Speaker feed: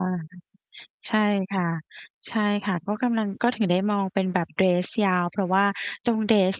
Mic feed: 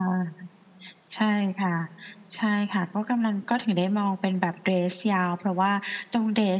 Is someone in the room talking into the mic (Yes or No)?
No